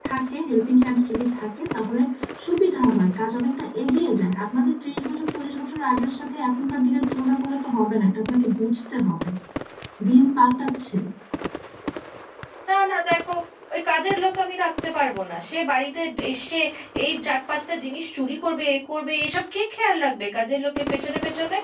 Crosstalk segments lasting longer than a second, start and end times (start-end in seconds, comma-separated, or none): none